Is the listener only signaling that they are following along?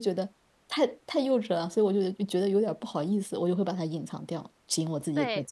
No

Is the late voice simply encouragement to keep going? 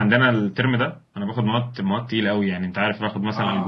No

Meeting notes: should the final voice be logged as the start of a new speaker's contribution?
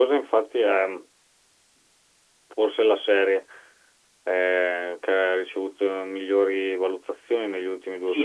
Yes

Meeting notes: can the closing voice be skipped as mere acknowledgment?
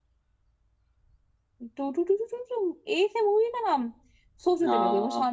Yes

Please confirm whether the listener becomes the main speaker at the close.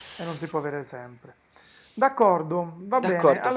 No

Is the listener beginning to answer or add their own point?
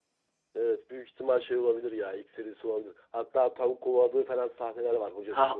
Yes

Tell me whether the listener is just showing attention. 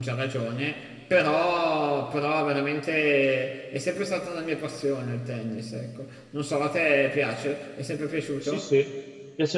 No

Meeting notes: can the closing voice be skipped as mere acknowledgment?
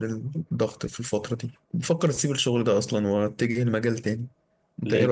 No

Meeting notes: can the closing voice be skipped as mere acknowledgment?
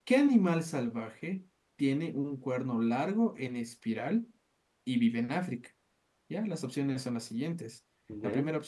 Yes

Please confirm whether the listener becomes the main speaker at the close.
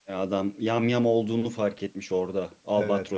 Yes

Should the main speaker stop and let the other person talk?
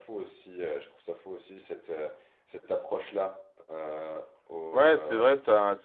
Yes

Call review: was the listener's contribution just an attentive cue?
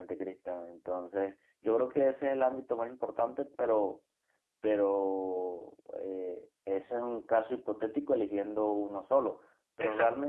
Yes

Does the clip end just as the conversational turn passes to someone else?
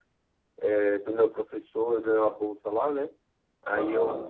No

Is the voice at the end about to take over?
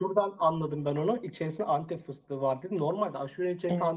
No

